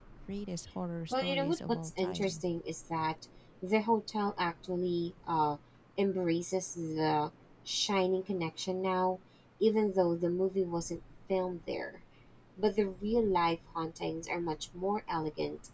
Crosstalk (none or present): present